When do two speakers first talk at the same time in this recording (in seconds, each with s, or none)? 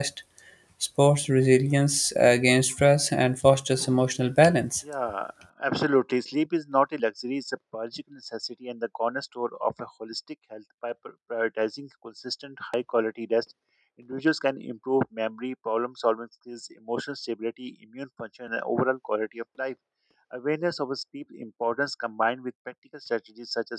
none